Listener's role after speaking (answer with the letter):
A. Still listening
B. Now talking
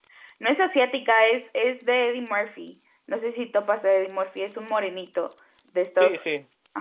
B